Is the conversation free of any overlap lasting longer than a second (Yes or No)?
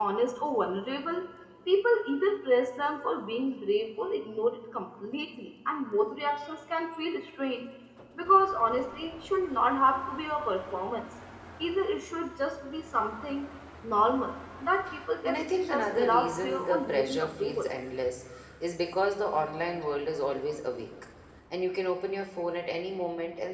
No